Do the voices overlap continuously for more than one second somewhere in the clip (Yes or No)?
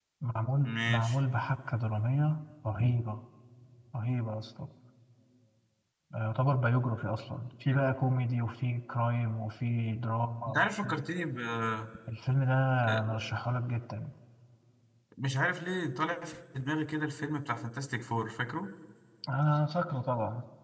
No